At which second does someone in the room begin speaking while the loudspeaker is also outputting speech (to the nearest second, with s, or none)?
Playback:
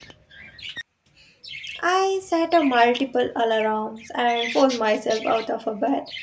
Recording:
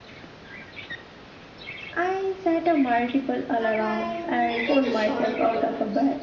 4 s